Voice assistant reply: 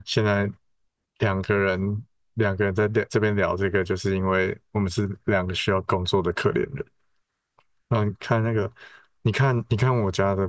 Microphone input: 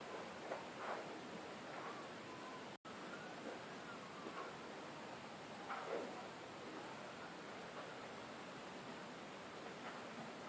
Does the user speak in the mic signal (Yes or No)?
No